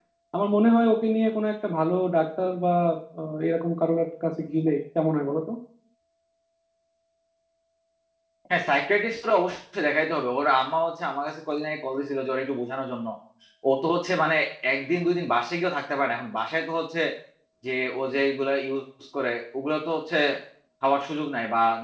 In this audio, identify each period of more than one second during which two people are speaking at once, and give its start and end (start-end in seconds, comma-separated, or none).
none